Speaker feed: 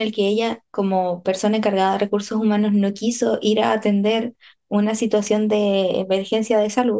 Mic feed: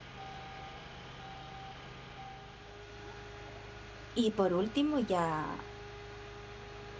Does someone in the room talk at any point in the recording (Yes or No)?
Yes